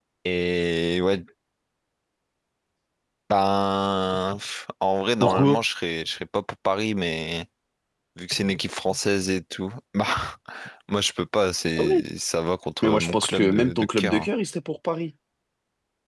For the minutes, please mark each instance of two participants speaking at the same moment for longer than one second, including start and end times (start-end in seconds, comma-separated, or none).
12.8-14.3